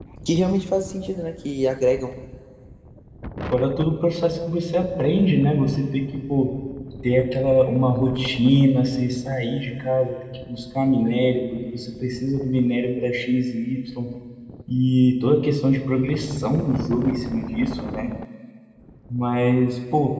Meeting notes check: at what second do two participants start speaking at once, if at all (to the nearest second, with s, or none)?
none